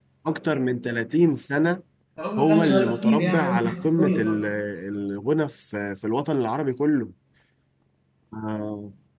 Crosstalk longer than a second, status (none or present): present